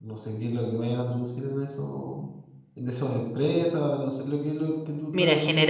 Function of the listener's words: taking over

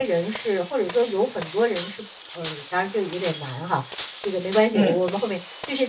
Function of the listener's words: listening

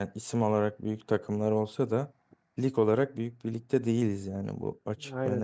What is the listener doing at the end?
taking over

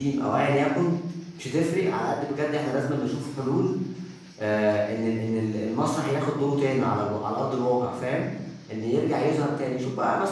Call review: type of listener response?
listening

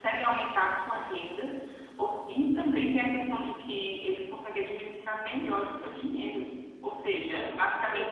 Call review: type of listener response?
listening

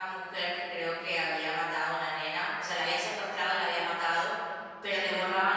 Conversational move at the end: listening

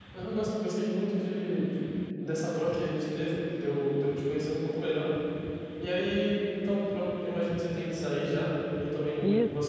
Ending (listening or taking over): listening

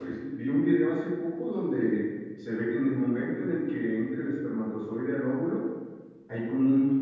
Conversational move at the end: listening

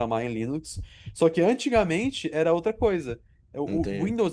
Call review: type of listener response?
listening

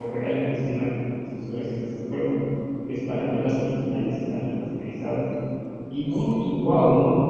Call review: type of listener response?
listening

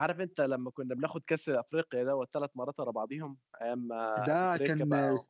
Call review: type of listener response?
taking over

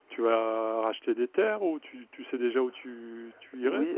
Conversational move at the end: taking over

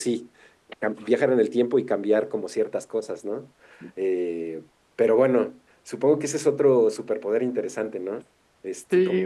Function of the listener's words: taking over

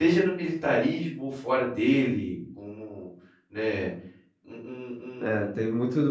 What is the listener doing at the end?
taking over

